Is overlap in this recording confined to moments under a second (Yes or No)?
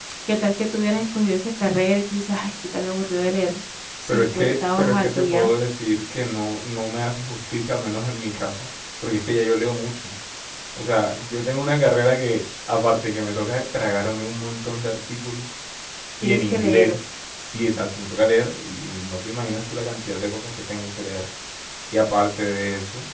No